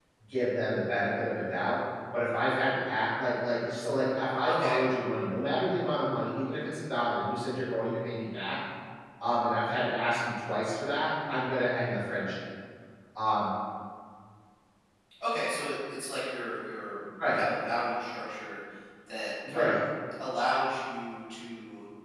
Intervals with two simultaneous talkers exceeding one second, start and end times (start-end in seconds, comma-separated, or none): none